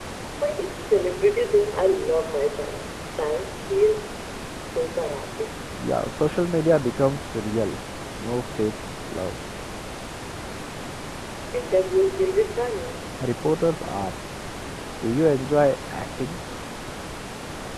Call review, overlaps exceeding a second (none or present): none